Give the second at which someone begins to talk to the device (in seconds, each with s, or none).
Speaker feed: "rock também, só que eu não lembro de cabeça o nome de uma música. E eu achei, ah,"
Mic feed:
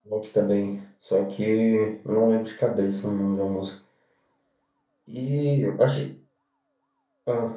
none